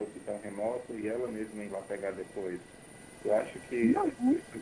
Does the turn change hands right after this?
No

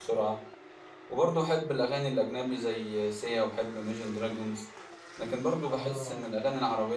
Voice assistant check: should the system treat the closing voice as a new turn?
No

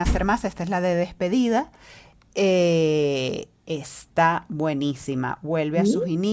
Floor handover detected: No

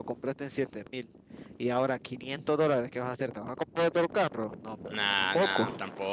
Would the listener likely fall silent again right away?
No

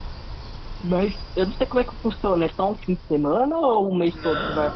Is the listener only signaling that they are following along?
No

